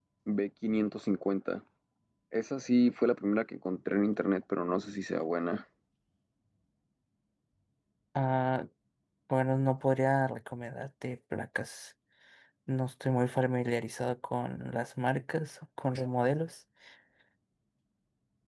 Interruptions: none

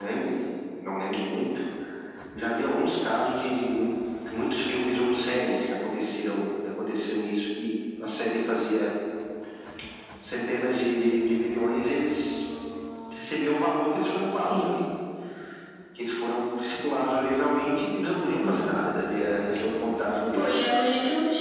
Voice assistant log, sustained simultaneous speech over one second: none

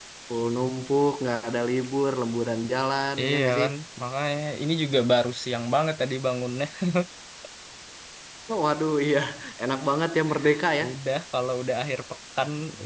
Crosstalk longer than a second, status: none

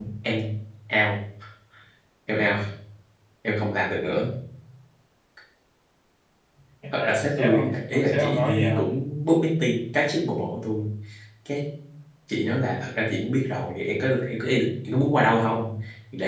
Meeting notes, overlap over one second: present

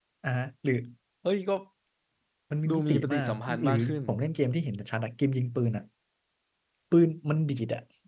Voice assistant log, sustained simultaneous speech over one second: present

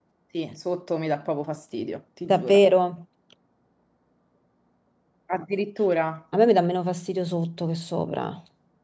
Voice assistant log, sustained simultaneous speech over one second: none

